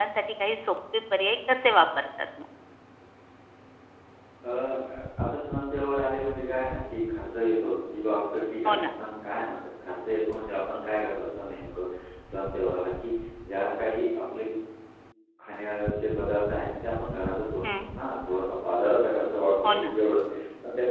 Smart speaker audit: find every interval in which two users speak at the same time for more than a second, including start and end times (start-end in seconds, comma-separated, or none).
none